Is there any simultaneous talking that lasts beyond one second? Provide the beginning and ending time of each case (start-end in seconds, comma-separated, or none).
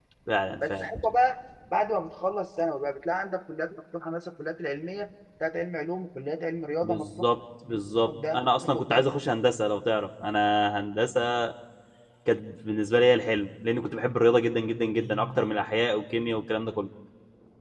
7.7-9.1